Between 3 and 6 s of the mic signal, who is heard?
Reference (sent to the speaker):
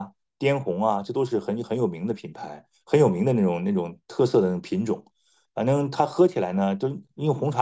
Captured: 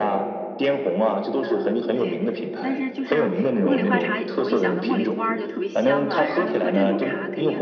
both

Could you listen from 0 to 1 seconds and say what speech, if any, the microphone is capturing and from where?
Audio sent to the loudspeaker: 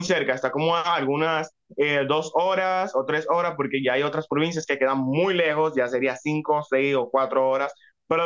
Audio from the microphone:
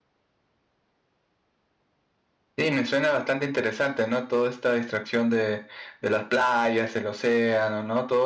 neither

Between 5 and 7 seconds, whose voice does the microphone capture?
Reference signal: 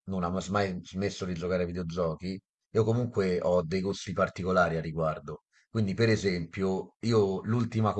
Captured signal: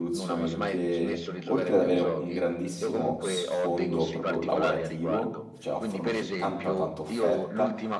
both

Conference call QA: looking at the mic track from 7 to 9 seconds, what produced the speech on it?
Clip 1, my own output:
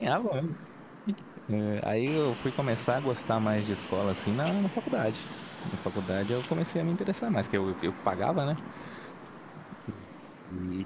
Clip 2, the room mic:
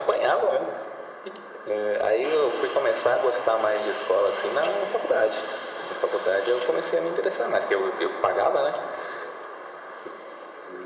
echo only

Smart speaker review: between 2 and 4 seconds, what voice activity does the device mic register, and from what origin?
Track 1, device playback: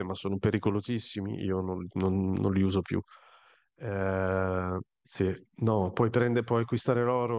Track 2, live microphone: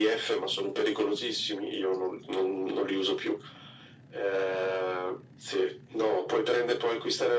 echo only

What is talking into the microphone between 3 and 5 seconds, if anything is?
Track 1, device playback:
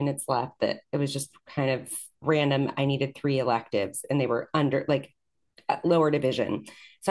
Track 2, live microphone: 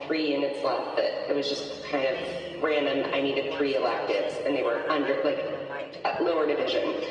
both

